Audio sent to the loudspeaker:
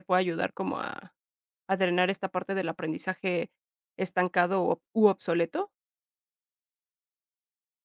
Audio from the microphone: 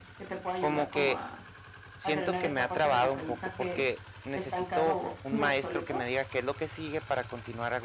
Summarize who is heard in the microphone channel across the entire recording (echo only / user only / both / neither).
both